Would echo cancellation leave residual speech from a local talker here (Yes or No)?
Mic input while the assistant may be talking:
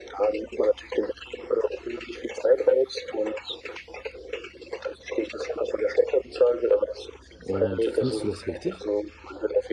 Yes